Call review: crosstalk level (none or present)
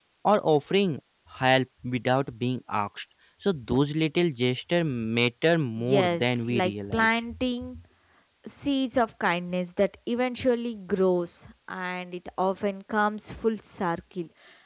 present